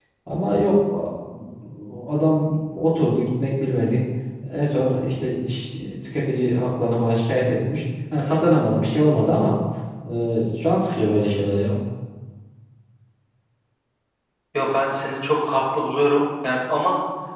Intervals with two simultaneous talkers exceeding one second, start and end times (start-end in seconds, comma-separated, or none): none